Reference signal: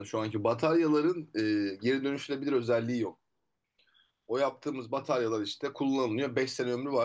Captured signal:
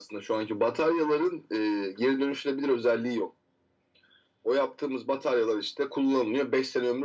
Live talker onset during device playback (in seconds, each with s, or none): none